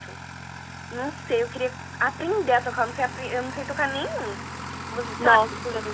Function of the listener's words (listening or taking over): taking over